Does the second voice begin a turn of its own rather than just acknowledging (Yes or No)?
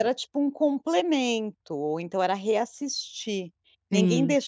No